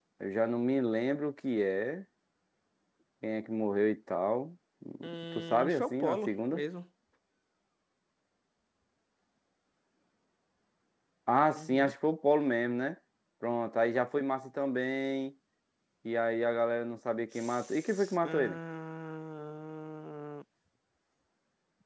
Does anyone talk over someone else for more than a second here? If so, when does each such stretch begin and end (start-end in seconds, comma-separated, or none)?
5.3-6.6, 17.3-18.6